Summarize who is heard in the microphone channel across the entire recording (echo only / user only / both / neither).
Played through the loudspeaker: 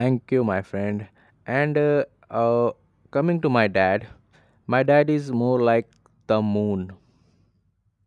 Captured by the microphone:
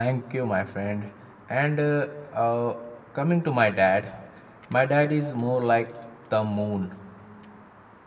echo only